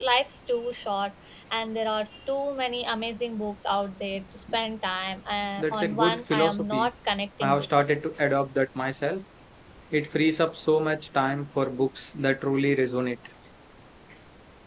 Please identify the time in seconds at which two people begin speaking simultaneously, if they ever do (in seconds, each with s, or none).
5.6 s